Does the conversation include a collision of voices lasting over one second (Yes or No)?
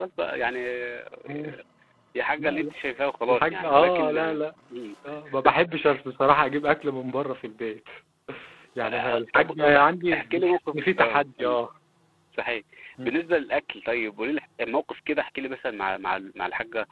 Yes